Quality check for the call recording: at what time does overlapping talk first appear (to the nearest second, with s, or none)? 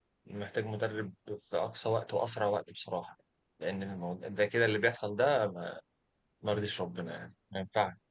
none